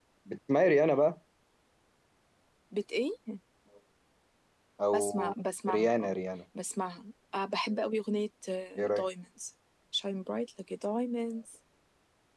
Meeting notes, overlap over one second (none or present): present